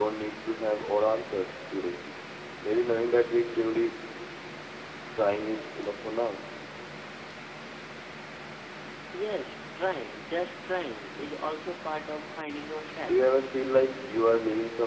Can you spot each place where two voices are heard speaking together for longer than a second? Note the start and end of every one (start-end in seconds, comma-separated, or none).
none